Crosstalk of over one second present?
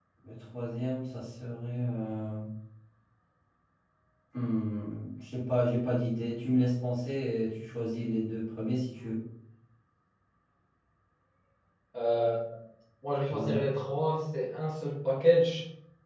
No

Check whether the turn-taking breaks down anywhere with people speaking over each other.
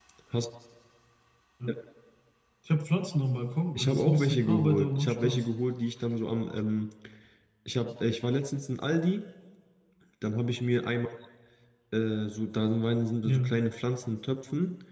Yes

